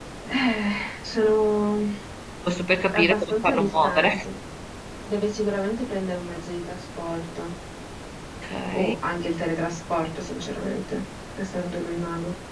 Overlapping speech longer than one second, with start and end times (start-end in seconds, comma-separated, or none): 2.9-4.2